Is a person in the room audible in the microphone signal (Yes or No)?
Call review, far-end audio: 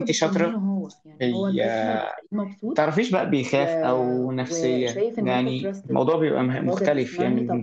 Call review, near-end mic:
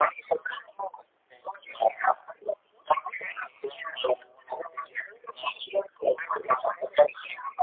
No